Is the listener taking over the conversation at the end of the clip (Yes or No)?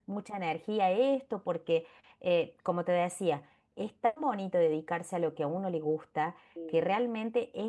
No